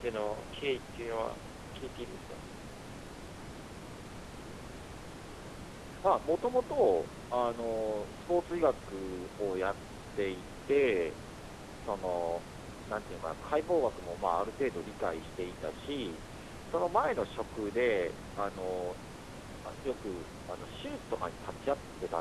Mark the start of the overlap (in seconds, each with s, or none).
none